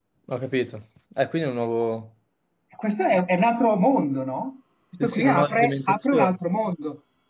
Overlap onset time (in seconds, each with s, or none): 5.0 s